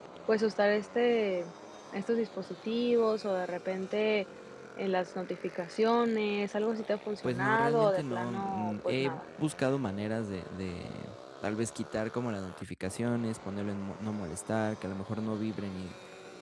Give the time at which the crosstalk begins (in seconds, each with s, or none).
7.2 s